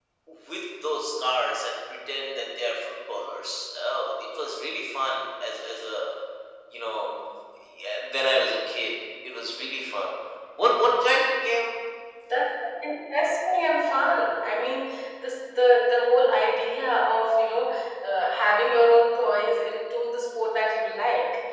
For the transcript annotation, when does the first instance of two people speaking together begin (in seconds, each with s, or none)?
none